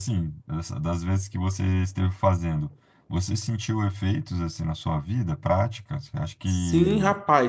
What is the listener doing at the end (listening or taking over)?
taking over